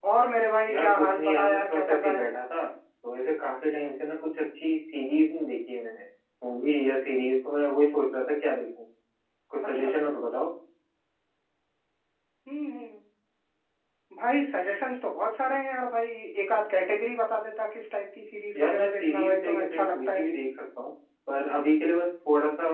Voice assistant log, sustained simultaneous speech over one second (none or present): present